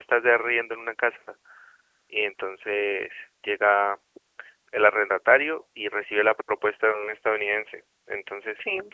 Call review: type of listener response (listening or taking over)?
listening